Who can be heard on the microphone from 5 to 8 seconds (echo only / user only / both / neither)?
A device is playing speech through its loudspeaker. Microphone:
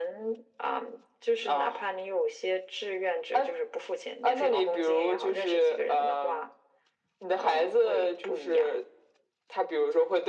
echo only